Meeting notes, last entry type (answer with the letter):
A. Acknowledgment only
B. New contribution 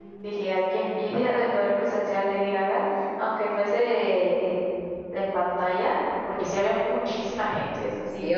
B